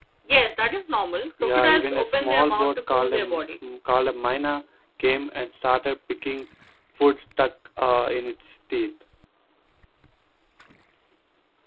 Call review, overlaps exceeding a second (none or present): present